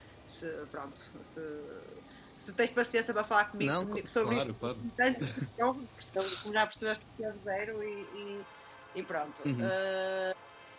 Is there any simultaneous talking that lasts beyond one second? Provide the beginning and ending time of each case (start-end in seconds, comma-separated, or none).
3.6-4.8